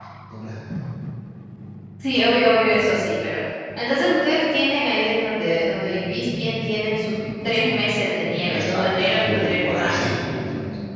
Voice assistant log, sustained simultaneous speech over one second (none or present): present